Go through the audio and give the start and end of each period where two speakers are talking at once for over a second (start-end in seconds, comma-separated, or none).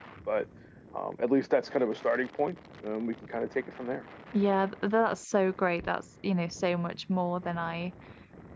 none